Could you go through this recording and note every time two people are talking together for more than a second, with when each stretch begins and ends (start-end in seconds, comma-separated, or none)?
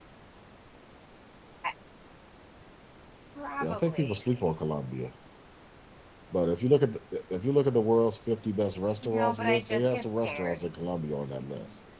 9.0-10.6